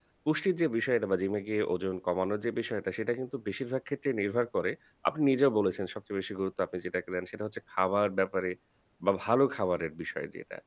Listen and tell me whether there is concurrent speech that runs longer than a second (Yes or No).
No